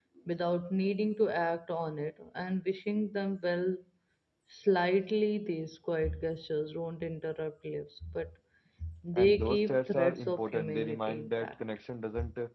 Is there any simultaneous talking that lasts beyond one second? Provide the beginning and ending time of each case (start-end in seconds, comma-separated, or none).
9.2-11.5